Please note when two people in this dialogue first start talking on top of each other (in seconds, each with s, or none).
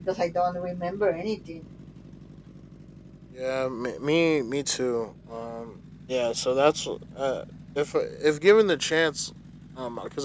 none